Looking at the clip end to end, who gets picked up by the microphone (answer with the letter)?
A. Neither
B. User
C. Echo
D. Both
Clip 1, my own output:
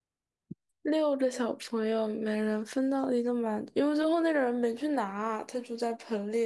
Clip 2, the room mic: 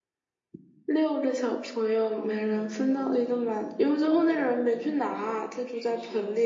D